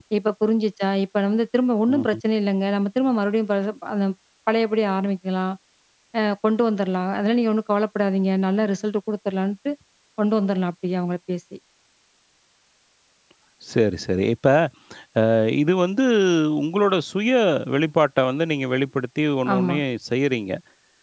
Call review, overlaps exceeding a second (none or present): none